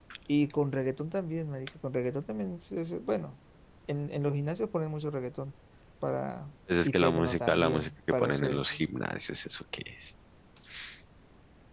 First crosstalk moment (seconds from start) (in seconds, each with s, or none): 6.8 s